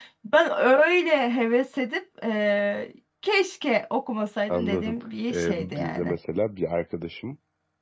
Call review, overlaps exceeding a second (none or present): present